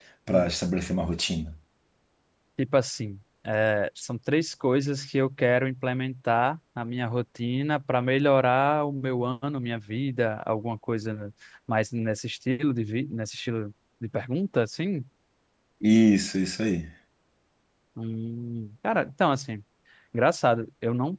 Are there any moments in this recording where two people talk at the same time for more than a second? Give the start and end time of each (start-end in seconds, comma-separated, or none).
none